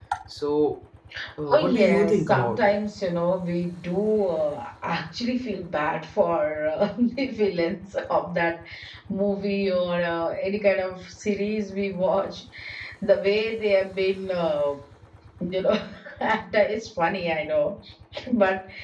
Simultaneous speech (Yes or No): Yes